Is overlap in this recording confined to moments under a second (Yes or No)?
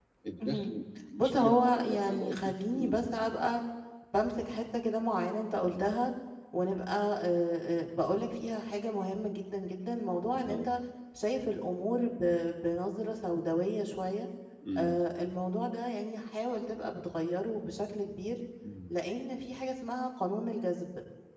No